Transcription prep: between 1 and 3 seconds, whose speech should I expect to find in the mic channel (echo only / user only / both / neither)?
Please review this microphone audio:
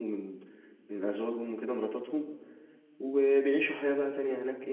user only